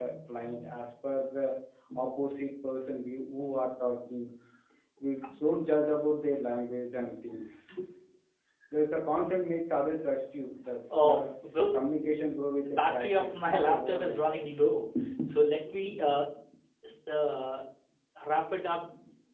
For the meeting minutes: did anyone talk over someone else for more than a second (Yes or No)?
Yes